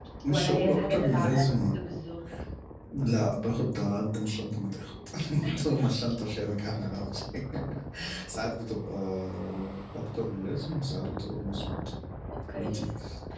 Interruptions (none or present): present